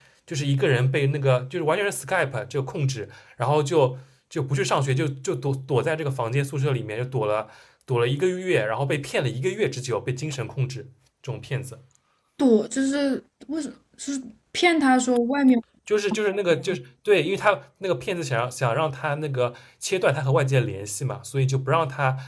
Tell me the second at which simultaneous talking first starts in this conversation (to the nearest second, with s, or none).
none